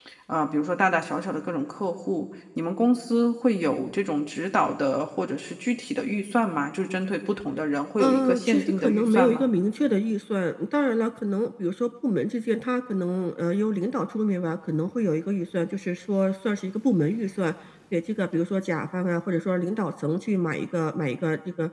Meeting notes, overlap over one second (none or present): present